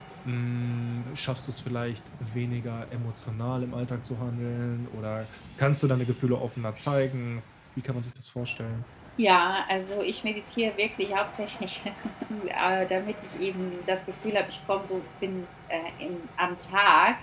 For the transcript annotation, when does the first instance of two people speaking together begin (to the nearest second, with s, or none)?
none